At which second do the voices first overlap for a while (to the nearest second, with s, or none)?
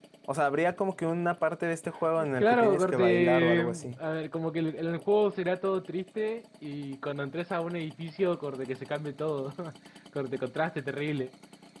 2 s